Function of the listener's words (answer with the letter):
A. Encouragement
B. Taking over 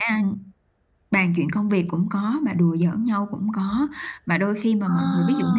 A